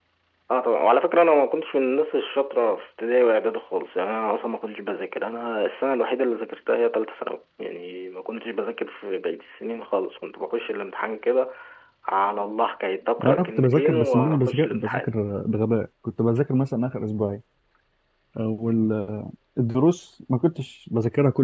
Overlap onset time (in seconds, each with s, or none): 13.2 s